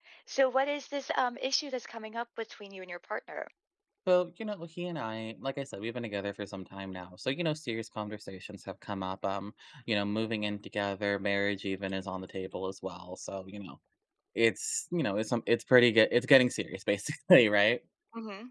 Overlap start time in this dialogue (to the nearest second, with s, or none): none